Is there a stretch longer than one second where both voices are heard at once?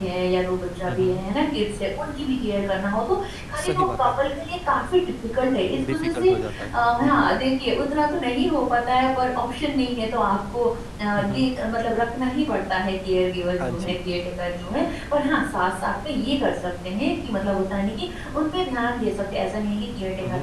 Yes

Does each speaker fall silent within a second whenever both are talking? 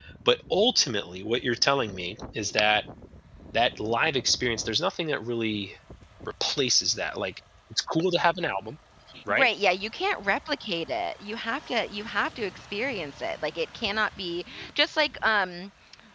Yes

